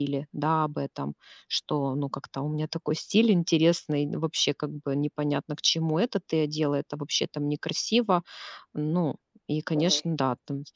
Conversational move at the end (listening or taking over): listening